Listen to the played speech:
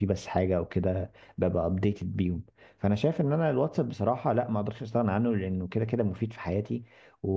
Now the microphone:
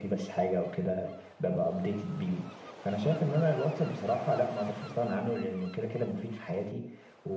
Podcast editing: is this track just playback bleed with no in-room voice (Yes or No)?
Yes